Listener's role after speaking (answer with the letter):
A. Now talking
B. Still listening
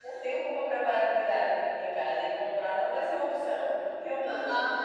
A